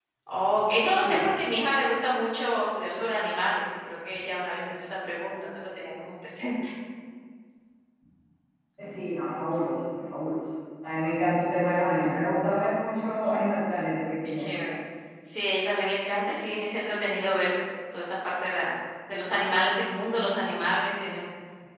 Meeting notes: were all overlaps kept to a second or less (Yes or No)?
Yes